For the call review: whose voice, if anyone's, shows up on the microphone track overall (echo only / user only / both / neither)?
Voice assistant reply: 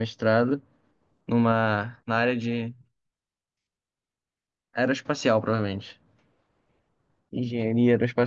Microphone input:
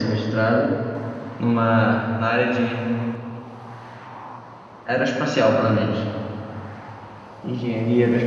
echo only